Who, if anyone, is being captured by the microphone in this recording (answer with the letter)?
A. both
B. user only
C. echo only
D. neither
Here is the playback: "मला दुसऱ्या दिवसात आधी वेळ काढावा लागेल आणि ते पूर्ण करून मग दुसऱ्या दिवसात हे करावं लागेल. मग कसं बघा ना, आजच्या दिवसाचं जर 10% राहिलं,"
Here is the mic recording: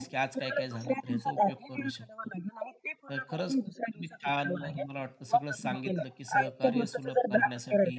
A